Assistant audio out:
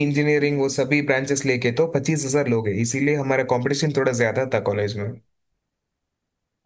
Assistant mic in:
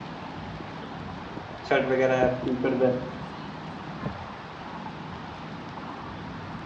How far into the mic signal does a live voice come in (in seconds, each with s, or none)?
1.7 s